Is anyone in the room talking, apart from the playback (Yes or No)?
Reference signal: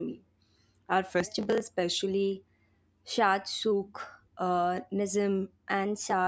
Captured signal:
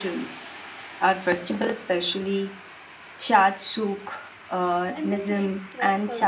Yes